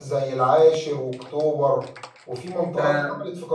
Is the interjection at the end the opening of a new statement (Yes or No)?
No